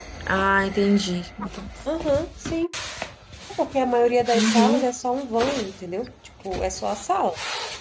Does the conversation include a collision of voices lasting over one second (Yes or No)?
No